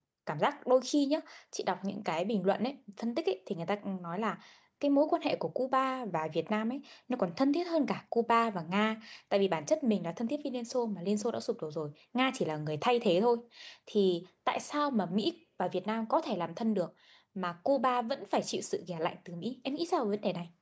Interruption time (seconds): none

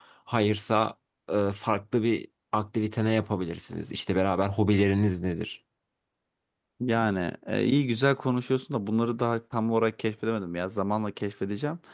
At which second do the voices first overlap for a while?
none

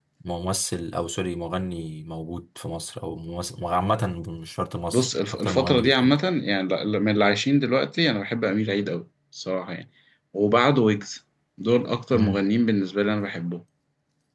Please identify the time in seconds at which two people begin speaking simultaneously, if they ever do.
4.9 s

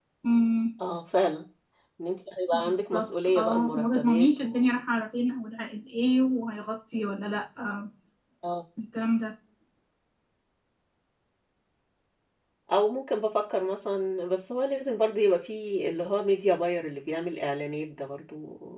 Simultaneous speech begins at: 2.5 s

